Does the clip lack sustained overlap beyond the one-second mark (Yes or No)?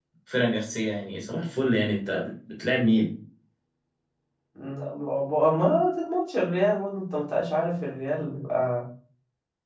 Yes